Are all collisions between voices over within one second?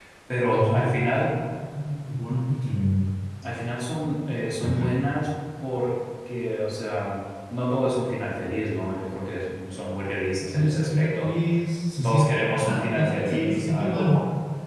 No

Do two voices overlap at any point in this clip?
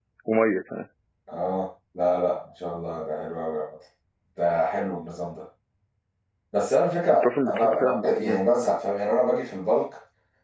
Yes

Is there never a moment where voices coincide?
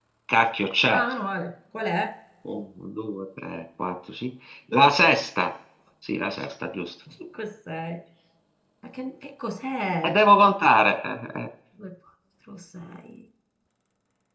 Yes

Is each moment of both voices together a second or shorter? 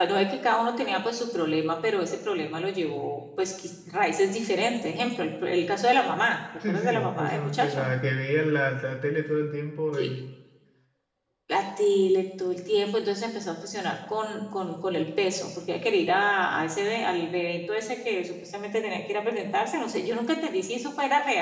No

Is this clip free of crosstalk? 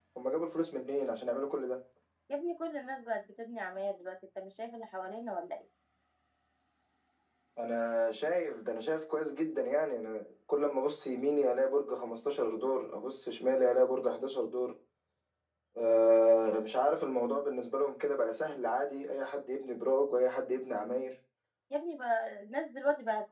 Yes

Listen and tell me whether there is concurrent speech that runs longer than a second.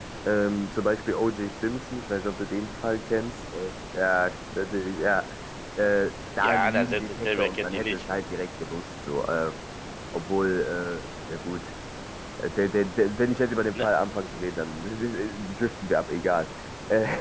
Yes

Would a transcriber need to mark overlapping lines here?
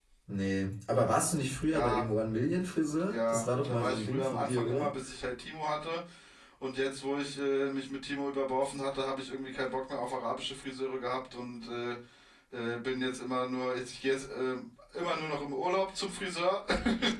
Yes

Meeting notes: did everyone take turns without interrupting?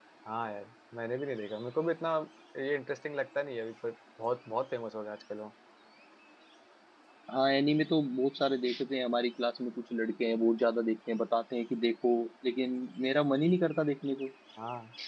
Yes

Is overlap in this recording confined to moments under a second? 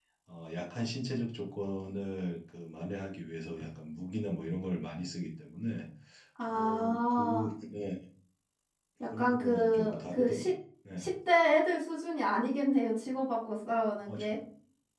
No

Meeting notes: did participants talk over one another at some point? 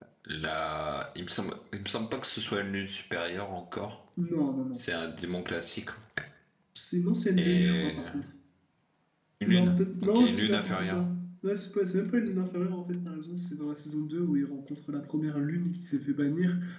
Yes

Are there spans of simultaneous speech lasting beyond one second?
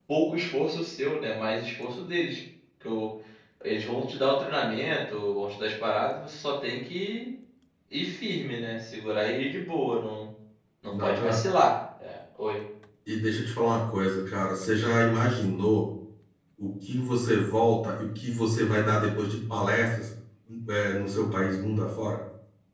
No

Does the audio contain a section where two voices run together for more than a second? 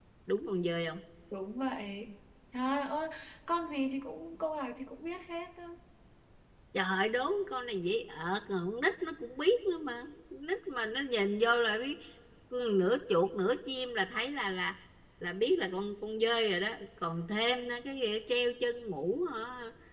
No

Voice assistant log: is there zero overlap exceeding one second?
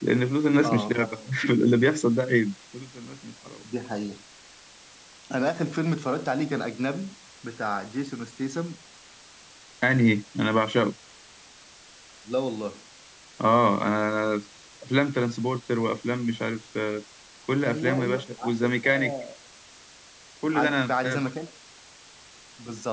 No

